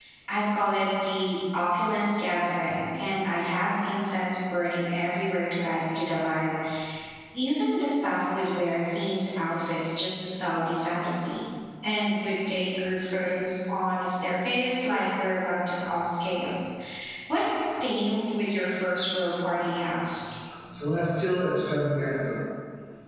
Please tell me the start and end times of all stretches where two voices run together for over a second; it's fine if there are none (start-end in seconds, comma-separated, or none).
none